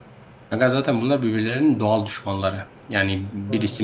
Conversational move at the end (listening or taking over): listening